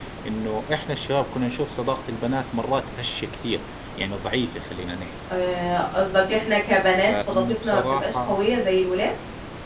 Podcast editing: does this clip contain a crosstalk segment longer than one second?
Yes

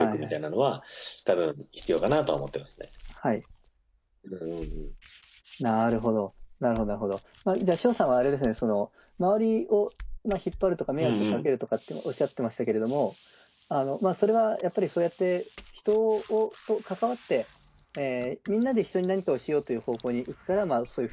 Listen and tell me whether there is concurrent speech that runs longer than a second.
No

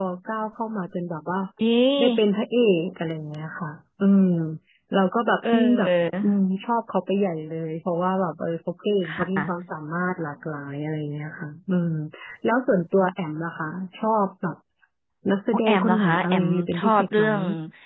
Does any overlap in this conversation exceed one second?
Yes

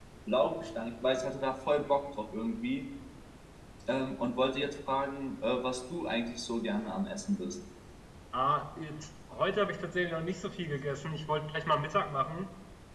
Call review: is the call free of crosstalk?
Yes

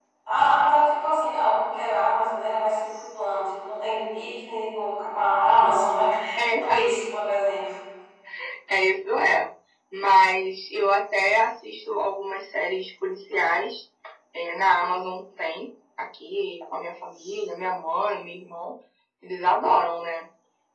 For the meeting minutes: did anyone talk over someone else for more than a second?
No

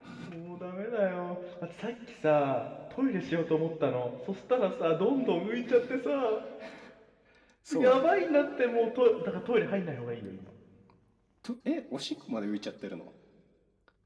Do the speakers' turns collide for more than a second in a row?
No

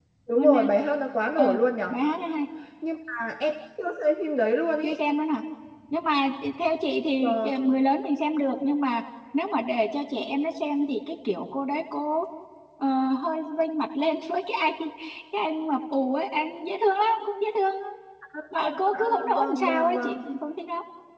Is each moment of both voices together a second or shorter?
No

